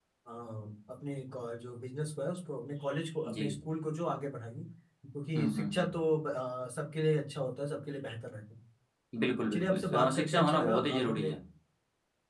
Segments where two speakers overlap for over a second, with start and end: 9.5-11.3

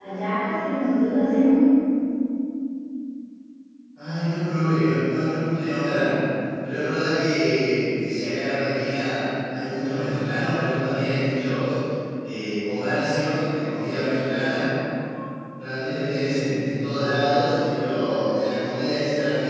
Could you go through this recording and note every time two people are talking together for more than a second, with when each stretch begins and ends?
none

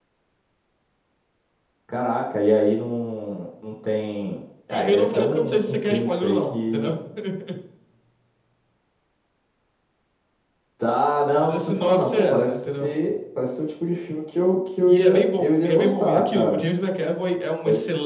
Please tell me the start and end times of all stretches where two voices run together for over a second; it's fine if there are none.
4.7-6.9, 11.4-12.9, 14.9-16.6

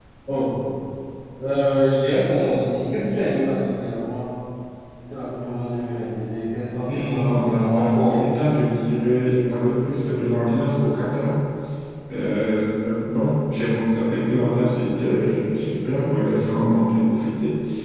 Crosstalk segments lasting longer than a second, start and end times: 6.9-8.3

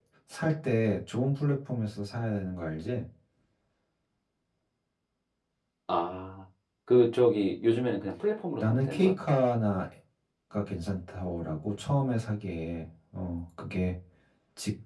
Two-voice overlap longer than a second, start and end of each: none

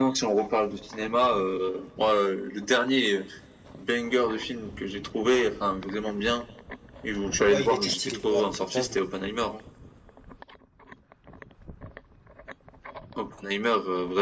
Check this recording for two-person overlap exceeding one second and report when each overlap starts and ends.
7.5-9.0

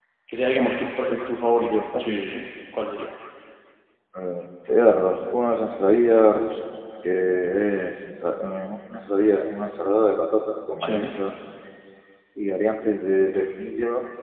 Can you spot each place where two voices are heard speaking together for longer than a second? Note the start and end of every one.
none

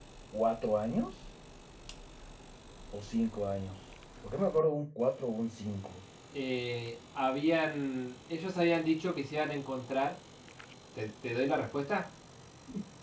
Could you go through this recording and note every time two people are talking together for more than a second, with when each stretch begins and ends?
none

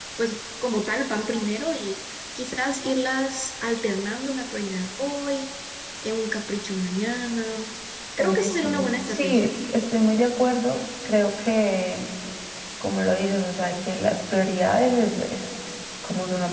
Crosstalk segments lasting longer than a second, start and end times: 8.2-9.5

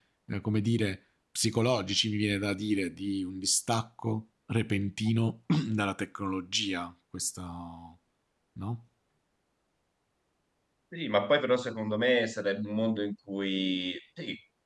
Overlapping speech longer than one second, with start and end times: none

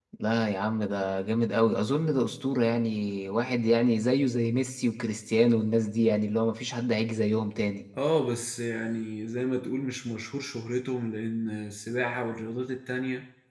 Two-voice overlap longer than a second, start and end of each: none

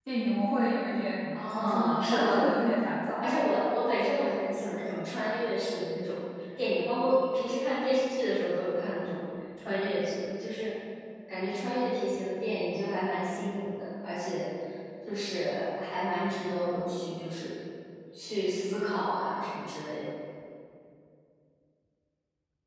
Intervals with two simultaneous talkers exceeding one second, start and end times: 1.3-2.6

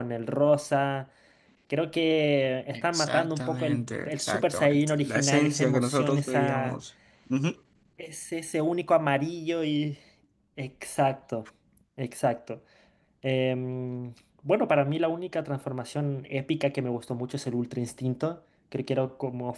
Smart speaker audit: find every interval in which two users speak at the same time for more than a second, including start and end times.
2.7-6.8

